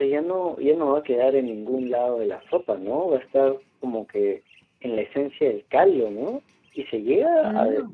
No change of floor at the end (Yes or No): Yes